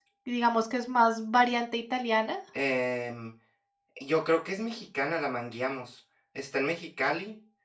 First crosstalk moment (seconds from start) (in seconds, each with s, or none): none